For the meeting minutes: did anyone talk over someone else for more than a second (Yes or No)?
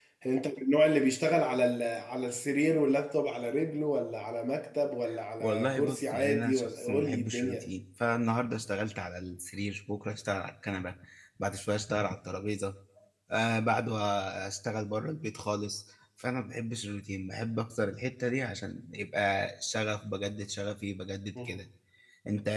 Yes